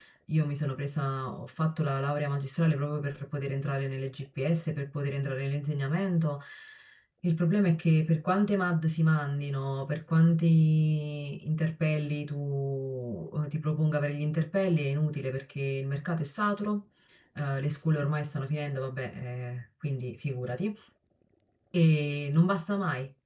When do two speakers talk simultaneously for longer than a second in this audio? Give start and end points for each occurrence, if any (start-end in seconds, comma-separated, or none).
none